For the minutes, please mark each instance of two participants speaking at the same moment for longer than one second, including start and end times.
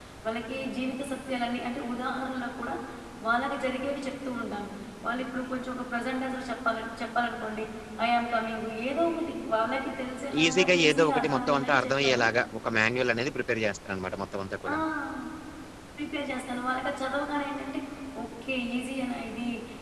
10.4-12.2

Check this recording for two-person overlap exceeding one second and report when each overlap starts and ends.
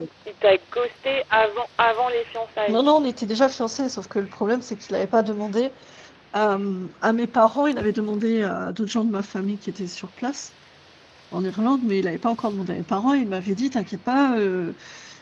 none

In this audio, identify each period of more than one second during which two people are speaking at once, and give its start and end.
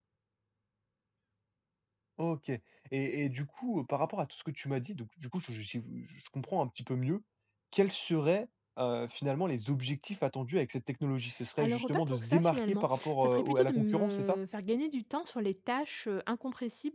11.6-14.4

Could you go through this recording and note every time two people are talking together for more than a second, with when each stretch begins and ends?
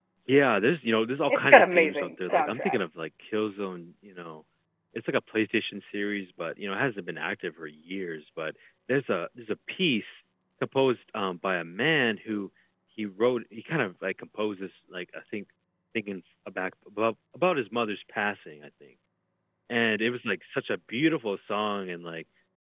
1.3-2.8

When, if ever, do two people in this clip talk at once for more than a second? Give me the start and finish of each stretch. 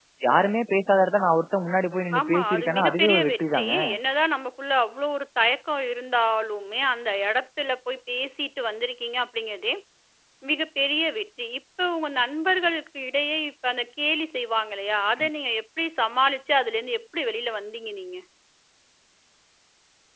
2.2-3.7

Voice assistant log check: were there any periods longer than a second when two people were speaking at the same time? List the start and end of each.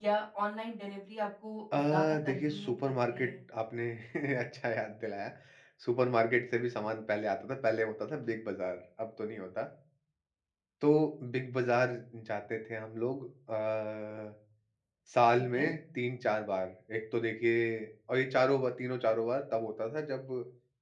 1.7-3.3

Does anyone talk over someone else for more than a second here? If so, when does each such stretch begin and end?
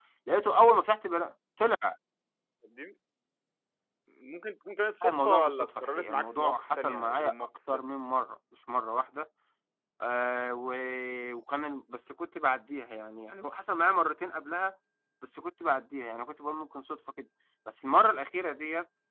5.0-7.8

